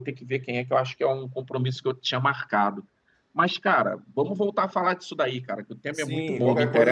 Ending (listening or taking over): taking over